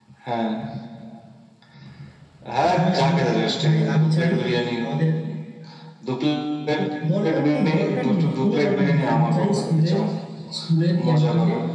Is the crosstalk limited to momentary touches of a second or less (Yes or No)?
No